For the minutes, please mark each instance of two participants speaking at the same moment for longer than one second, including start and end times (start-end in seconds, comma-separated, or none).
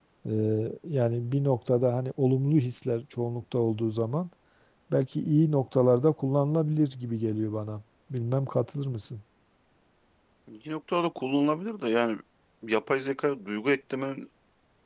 none